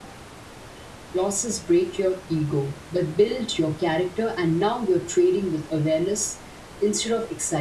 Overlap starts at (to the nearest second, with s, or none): none